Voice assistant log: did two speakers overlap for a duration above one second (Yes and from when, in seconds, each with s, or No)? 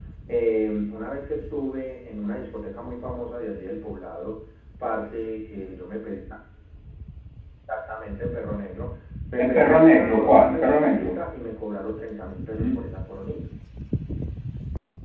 Yes, from 9.4 s